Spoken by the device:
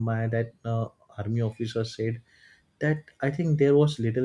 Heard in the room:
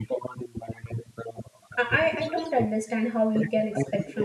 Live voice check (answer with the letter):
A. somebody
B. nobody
A